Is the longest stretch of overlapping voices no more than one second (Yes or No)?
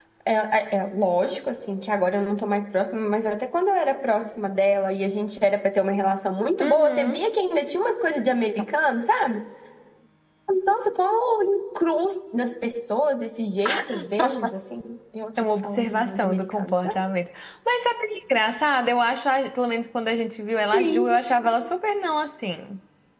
No